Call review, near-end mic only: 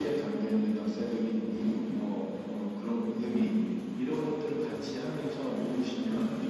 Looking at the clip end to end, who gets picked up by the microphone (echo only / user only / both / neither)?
echo only